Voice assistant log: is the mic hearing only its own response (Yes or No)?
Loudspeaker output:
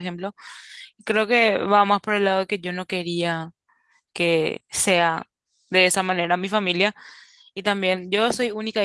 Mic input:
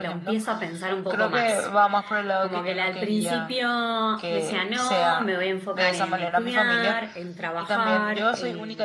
No